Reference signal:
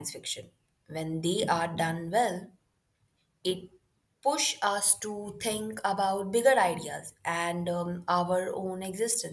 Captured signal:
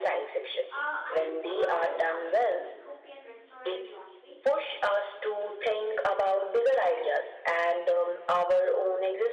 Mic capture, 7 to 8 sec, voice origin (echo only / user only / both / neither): echo only